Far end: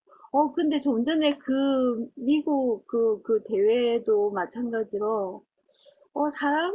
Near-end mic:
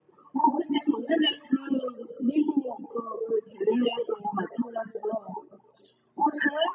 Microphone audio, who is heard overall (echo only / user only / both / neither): echo only